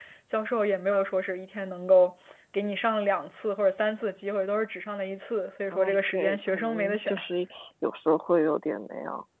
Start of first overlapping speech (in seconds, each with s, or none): 5.7 s